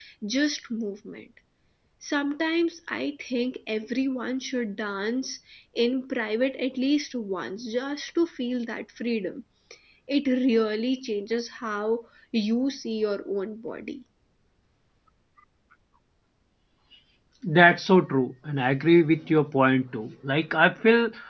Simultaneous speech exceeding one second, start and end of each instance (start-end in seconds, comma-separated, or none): none